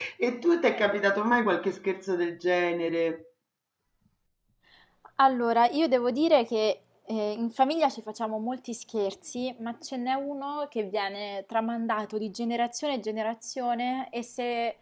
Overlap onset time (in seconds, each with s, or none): none